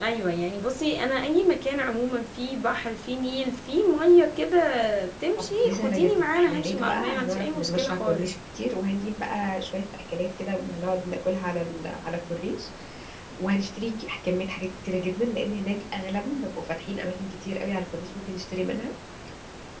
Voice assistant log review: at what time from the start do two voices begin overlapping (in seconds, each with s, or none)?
5.4 s